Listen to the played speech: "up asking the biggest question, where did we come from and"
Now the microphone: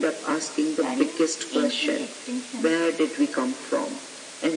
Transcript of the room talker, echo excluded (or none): Studying ancient extinctions